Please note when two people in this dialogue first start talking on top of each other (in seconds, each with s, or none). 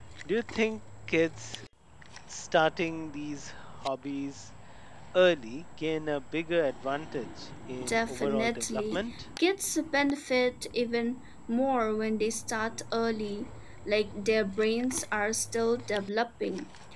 7.8 s